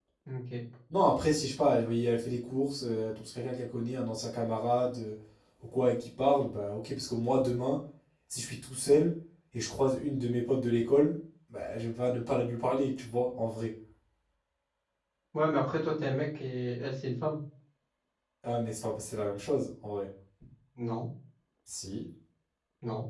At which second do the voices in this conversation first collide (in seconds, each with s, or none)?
none